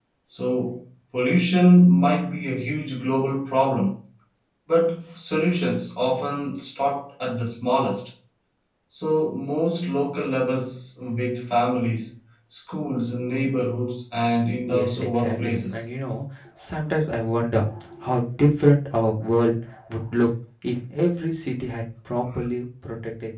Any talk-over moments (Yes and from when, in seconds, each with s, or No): Yes, from 14.6 s